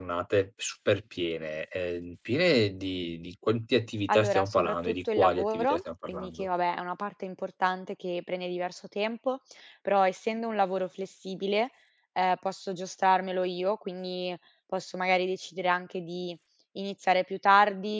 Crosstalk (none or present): present